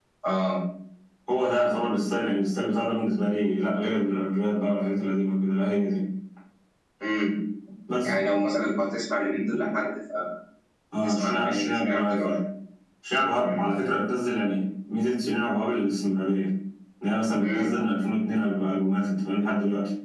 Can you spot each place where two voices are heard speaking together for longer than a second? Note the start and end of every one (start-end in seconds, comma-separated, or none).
11.0-12.4